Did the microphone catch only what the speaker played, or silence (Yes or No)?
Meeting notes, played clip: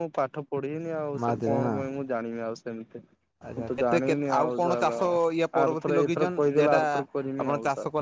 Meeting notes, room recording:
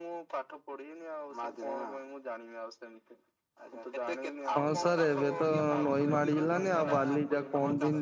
No